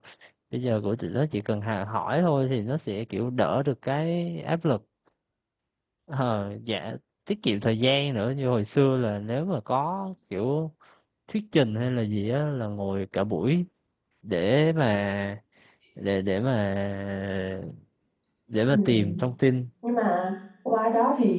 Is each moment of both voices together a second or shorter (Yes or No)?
Yes